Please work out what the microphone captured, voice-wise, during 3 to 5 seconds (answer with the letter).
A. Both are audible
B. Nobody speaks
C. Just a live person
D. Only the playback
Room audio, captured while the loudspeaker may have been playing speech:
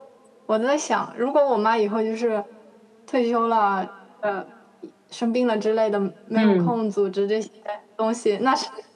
D